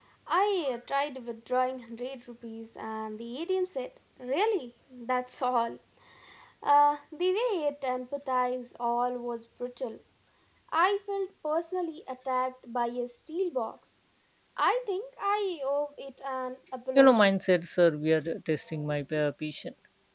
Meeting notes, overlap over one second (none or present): none